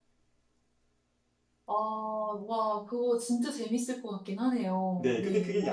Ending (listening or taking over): taking over